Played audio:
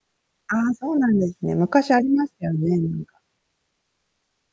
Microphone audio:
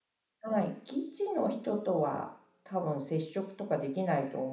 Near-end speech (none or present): present